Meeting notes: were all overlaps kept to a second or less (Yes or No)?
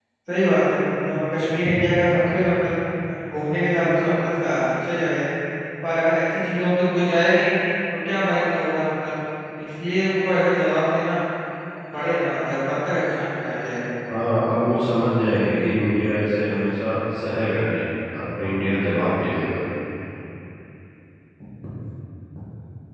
Yes